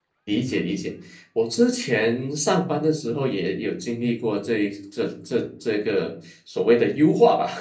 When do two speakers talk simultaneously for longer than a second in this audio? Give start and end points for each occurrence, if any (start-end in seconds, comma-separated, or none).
none